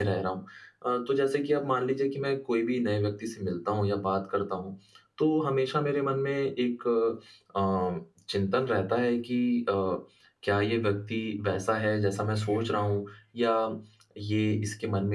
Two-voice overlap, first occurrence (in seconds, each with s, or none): none